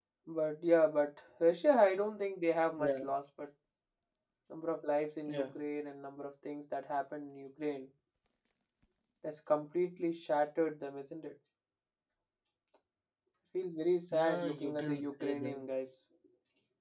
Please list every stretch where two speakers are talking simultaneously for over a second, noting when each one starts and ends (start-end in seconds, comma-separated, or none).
14.1-15.6